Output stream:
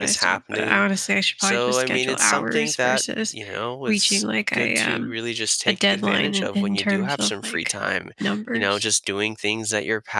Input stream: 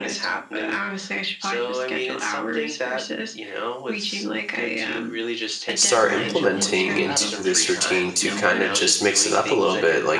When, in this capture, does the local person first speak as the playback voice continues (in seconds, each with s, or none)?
5.7 s